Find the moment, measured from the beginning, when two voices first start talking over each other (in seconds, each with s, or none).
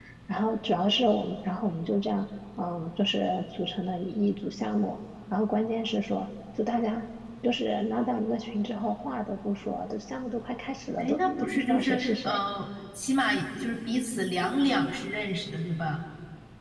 11.0 s